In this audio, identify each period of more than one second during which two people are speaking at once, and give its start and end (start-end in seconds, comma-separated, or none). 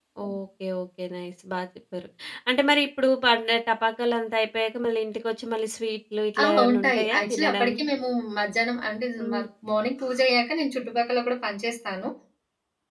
6.4-7.7